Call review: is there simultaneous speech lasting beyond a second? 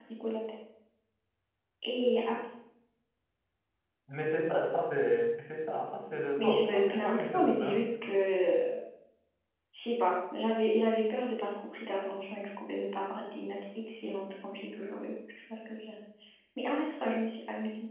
Yes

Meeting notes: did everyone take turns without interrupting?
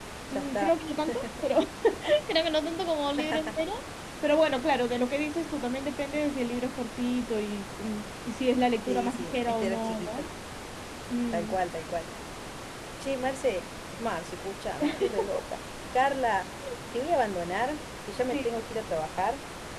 No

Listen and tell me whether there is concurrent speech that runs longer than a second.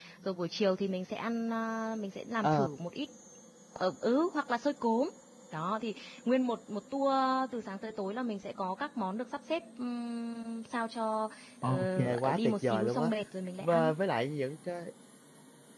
Yes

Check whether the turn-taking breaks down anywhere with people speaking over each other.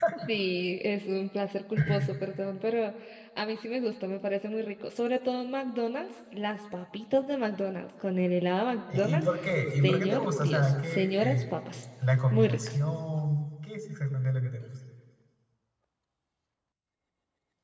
Yes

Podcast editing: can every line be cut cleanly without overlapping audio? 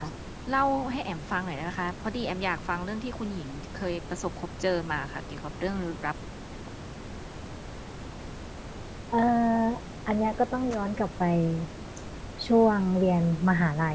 Yes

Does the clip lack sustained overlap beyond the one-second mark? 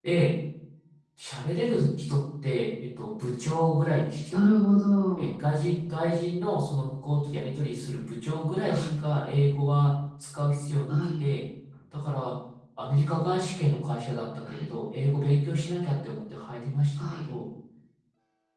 Yes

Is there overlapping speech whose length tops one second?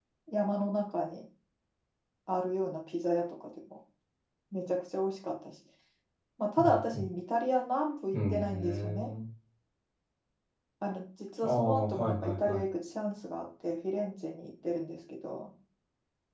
Yes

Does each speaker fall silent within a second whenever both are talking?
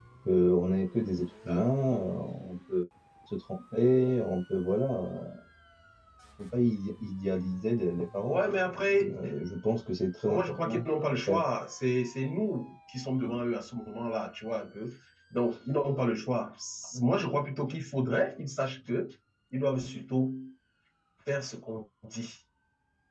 No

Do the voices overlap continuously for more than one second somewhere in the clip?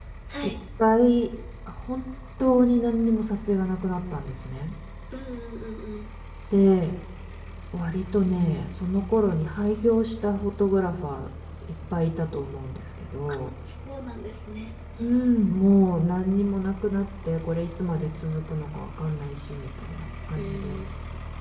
No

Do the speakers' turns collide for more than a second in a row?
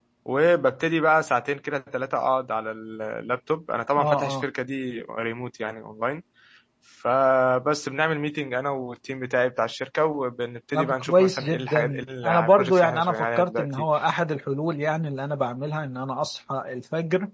Yes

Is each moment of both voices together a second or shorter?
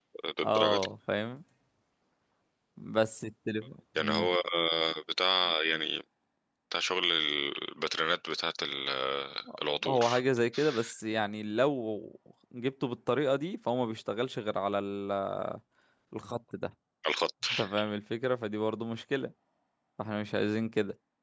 Yes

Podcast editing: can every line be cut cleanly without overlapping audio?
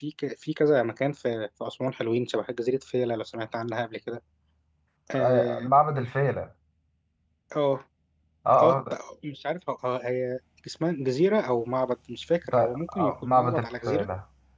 No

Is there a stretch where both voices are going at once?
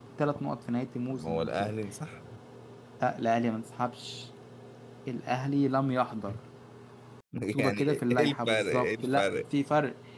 Yes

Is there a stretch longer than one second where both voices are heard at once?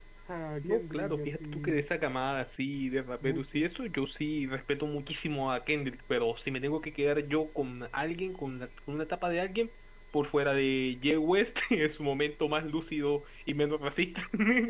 Yes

